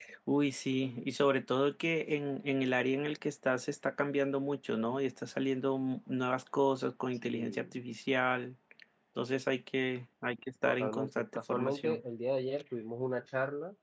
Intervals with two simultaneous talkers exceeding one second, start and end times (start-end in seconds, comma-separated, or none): 10.6-12.0